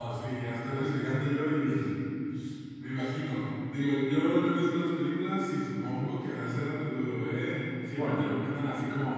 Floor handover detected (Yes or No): No